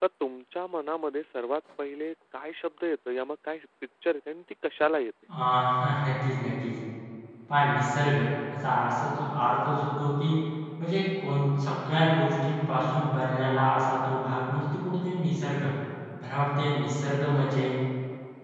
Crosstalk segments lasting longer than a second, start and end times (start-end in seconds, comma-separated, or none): none